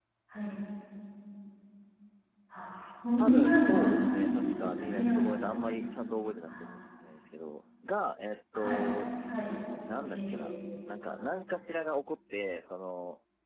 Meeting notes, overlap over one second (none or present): present